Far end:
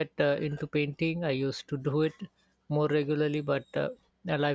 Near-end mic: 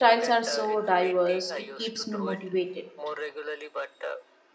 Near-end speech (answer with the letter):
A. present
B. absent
A